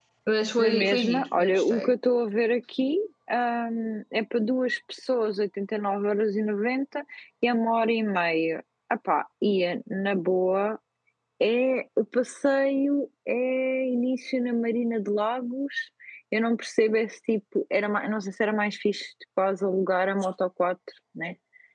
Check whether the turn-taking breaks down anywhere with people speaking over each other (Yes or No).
Yes